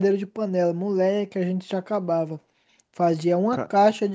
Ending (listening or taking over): listening